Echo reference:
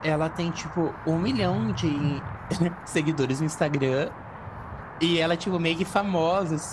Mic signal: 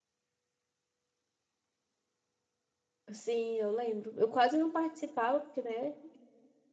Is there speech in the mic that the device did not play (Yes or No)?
Yes